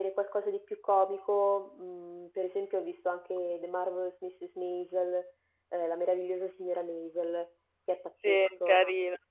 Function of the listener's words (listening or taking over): taking over